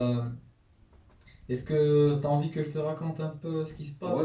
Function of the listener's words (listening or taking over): taking over